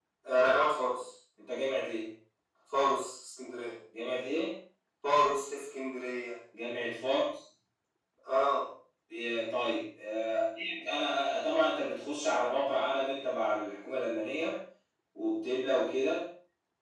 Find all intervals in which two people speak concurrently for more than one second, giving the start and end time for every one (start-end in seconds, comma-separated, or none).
none